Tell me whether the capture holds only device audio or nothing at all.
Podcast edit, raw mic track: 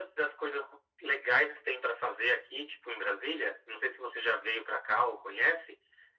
Yes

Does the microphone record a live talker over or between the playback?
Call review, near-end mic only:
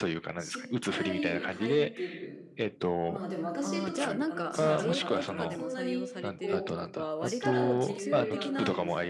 Yes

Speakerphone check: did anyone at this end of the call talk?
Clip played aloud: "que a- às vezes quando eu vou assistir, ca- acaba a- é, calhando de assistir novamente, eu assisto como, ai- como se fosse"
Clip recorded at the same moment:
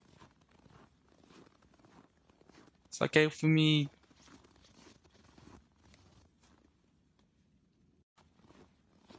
Yes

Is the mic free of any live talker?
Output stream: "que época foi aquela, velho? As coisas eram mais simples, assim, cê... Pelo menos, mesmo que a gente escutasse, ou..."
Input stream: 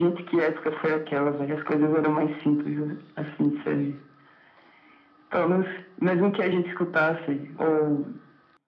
Yes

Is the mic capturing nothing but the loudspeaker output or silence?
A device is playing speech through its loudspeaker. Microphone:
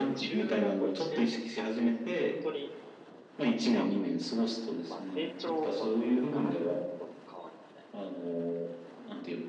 No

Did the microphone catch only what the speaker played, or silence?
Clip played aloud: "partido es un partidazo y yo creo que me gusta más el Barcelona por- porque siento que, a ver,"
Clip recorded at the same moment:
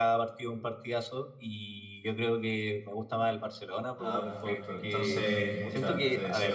No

